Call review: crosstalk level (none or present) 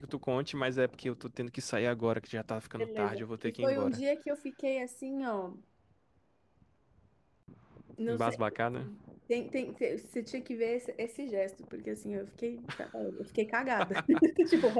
present